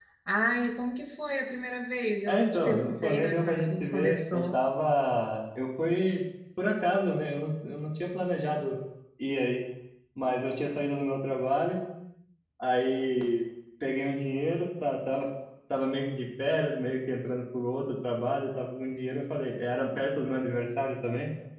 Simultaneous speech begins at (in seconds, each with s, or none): 2.3 s